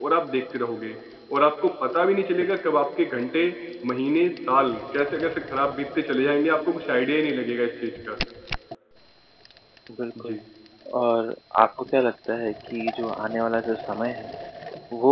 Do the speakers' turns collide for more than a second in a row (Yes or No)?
No